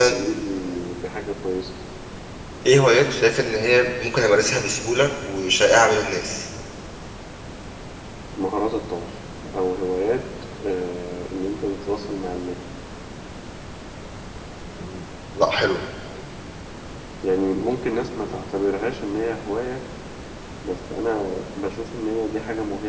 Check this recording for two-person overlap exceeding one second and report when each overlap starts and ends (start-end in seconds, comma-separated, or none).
none